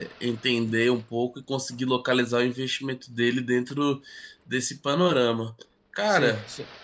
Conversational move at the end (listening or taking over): taking over